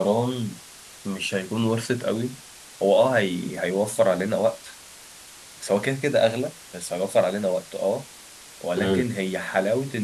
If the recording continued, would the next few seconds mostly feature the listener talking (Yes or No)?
No